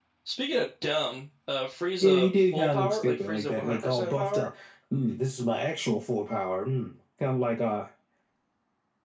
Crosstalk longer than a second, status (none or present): present